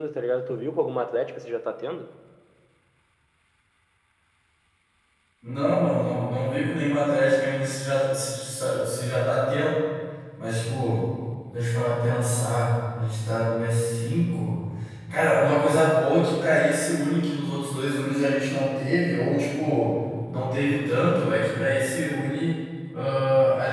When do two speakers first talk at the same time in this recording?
none

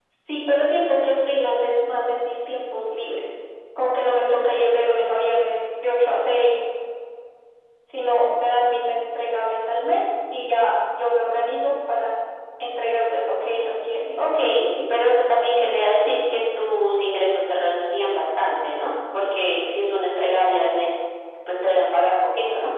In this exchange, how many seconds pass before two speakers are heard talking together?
none

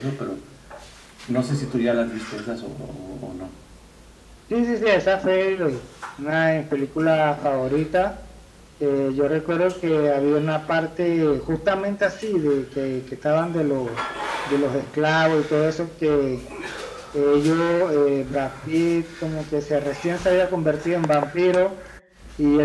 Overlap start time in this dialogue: none

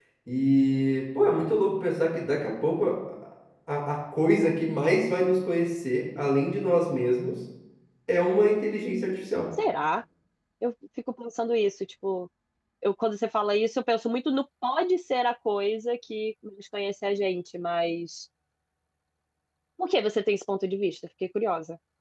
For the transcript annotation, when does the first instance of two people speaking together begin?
none

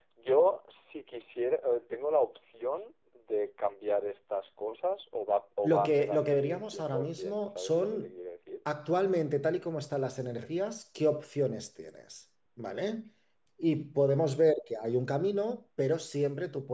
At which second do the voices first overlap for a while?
5.6 s

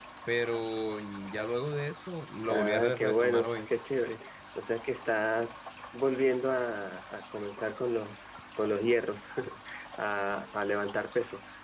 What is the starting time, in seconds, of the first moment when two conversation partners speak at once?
2.5 s

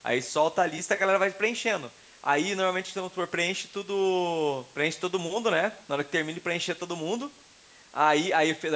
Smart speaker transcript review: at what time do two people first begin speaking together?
none

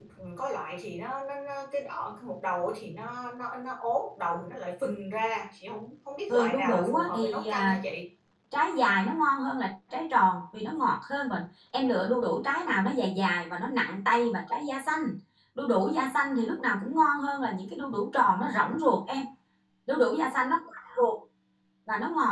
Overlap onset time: 6.3 s

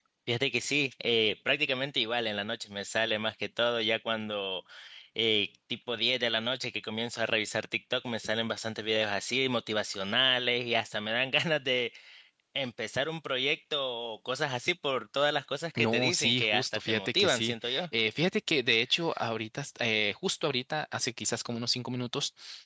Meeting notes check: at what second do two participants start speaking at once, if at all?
15.8 s

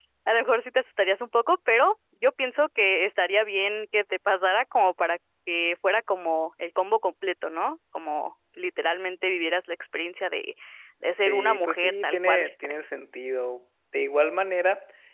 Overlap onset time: 11.2 s

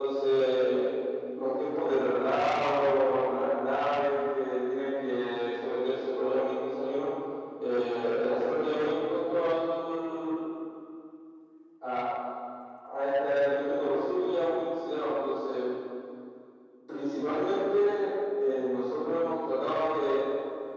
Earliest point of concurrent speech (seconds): none

